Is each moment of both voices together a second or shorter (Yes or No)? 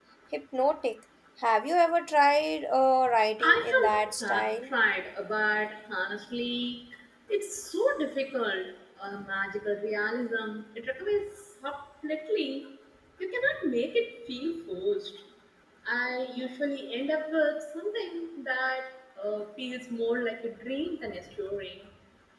No